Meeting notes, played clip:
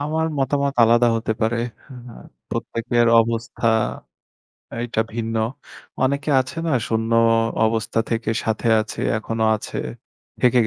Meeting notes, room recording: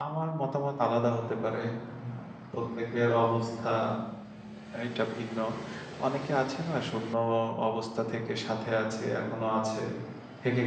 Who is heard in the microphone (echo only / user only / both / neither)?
echo only